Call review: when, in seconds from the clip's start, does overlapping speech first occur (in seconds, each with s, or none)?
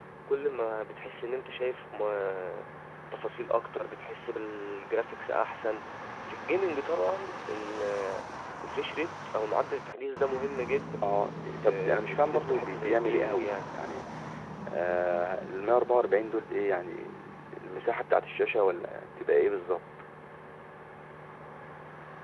11.6 s